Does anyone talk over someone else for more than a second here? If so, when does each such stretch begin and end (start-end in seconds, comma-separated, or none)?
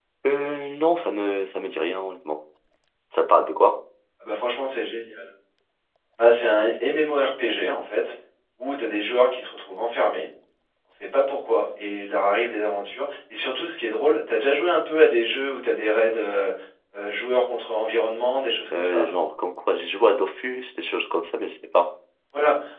none